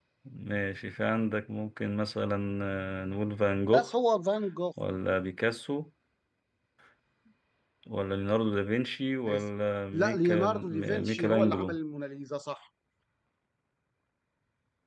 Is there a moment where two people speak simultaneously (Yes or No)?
Yes